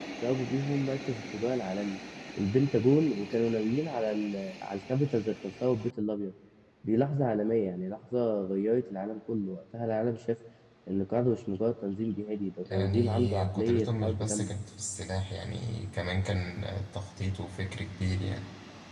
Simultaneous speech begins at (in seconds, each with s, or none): 12.7 s